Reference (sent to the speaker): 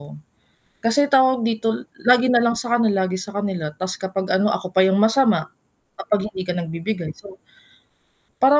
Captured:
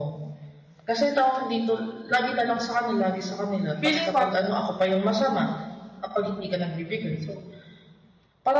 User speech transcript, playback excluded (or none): feeling ko ah,